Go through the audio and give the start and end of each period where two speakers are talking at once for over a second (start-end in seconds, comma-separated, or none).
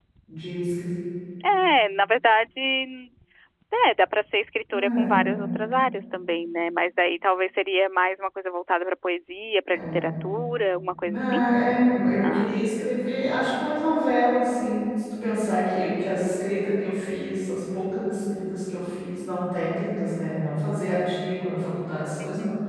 none